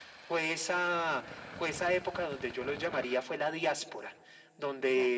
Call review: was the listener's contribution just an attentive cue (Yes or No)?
Yes